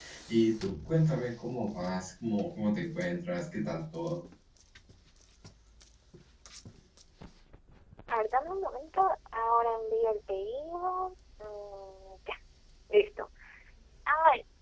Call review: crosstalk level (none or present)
none